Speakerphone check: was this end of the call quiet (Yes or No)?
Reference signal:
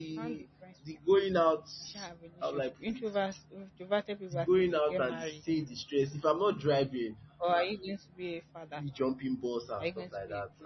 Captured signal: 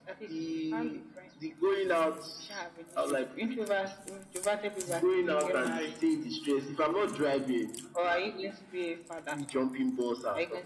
Yes